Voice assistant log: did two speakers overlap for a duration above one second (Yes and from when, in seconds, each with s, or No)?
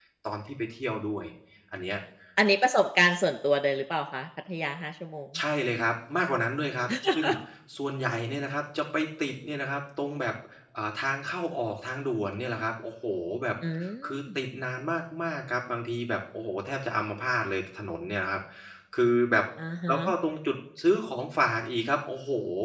No